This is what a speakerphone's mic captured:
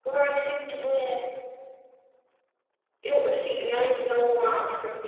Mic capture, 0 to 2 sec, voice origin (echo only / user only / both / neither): user only